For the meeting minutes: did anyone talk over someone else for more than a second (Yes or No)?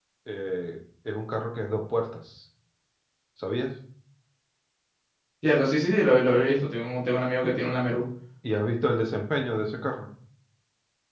No